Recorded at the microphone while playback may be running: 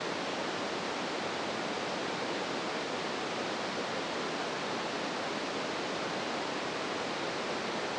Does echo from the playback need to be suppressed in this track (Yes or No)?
No